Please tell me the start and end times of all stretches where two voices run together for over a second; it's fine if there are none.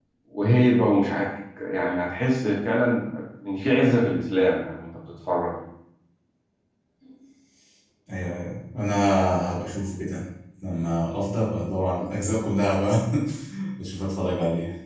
none

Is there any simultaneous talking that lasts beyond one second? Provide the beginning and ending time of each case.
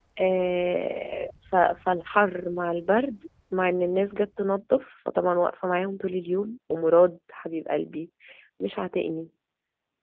none

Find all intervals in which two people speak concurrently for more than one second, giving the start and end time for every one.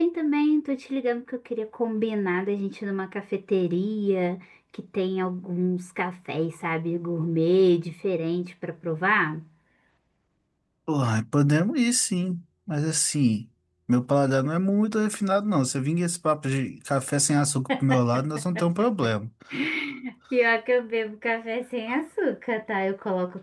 none

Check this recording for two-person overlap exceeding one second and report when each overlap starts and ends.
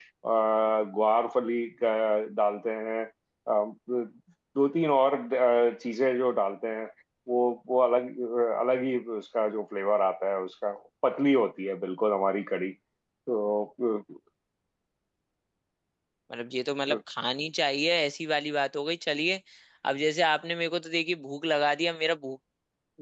none

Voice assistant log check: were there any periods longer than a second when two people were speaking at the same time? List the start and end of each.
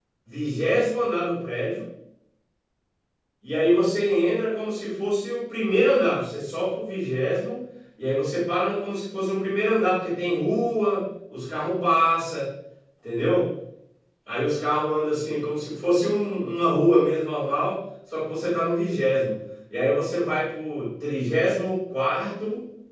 none

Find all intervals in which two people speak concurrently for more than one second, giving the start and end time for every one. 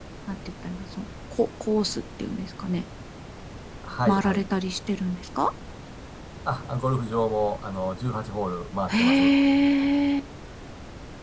none

